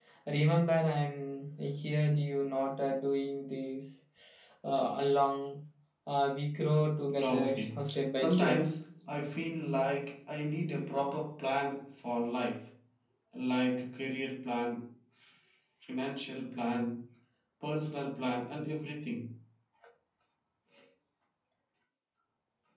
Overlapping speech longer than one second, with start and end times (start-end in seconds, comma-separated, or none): 7.2-8.7